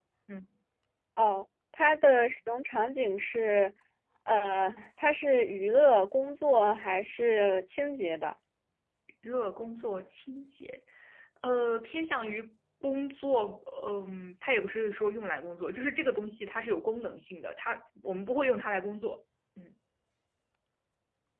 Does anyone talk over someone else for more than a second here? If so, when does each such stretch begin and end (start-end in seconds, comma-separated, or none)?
none